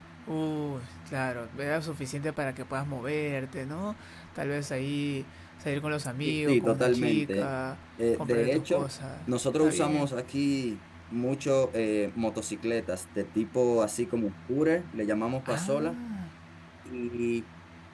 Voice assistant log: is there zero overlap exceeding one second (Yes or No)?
No